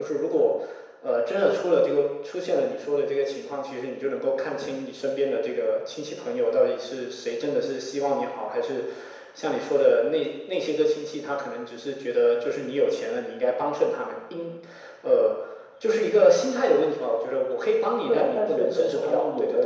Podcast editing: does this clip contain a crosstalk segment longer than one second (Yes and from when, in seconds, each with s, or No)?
Yes, from 18.1 s